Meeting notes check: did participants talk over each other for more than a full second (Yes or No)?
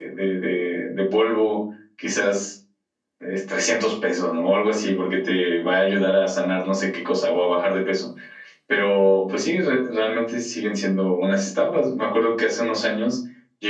No